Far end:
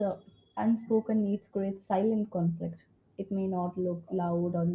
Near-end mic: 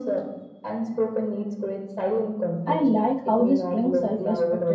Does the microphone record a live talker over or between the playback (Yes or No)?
Yes